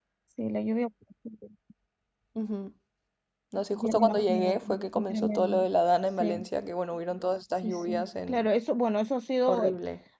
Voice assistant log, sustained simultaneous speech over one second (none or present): present